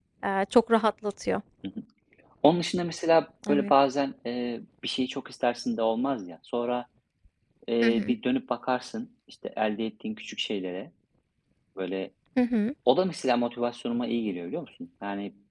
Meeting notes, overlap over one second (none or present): none